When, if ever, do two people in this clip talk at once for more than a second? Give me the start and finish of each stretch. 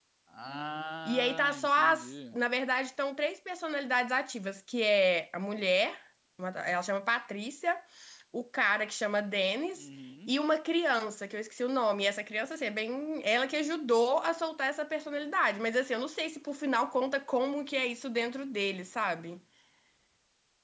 1.1-2.3

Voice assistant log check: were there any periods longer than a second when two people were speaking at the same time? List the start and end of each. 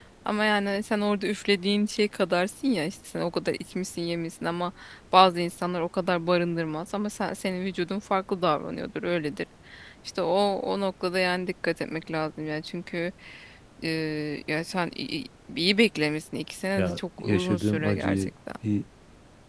16.8-18.3

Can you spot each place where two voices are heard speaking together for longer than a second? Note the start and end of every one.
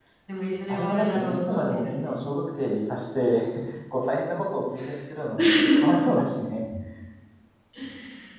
0.7-2.1

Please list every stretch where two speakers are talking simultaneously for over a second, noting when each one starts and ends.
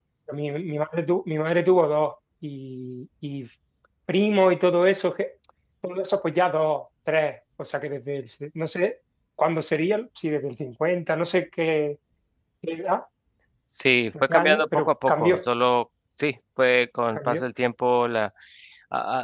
14.2-15.4

